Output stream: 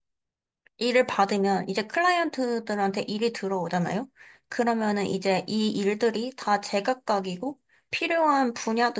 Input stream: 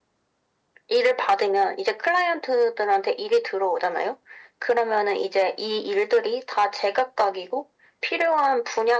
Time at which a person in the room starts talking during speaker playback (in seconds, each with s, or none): none